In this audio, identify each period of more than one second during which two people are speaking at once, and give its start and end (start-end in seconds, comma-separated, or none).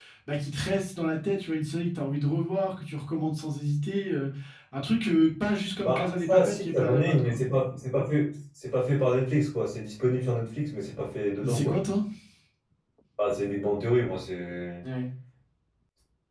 5.8-7.4